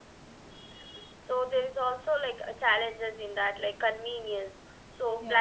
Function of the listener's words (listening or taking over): listening